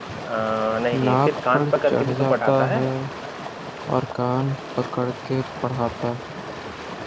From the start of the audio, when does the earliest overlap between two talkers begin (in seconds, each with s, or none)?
1.0 s